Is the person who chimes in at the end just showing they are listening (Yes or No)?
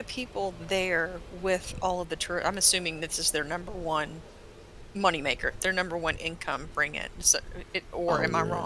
No